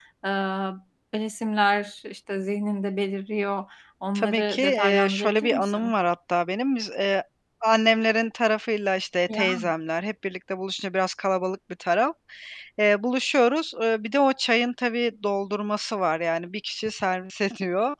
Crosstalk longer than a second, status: present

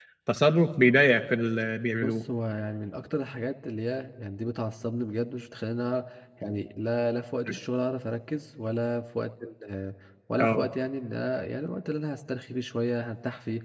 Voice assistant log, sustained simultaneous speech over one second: none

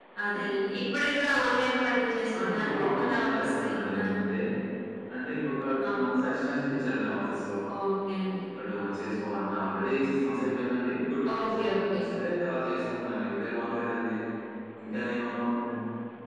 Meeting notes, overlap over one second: present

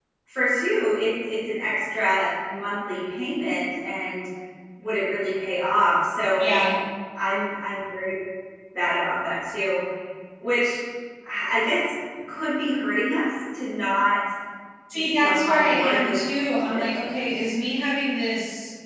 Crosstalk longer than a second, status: present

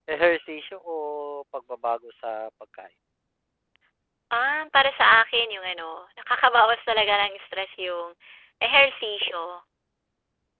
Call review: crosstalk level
none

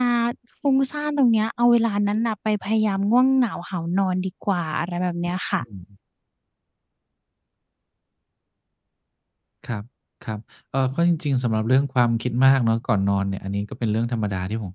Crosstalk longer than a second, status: none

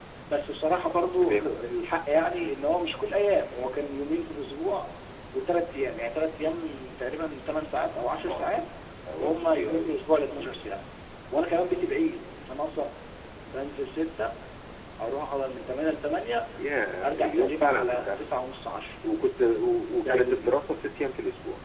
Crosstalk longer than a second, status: present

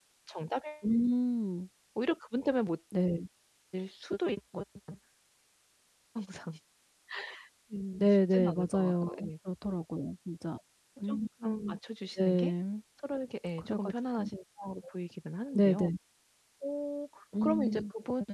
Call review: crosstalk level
present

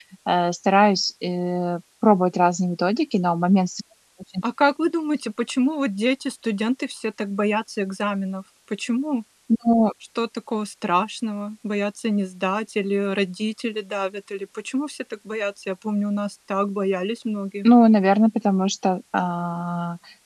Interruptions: none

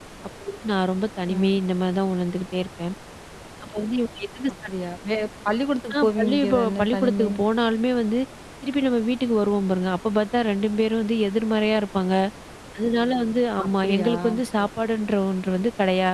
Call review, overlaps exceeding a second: present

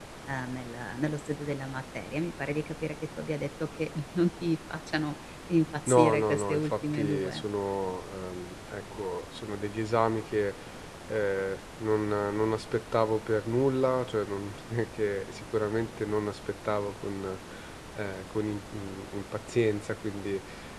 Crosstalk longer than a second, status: present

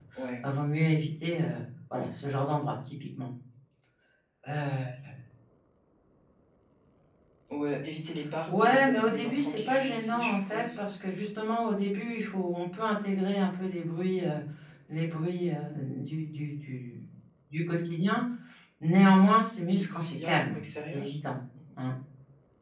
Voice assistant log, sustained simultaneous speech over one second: present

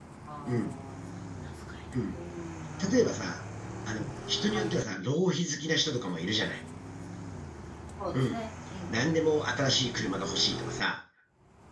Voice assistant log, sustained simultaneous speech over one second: none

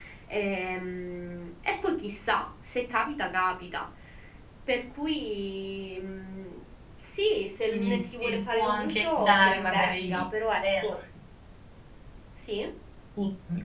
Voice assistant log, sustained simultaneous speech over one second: present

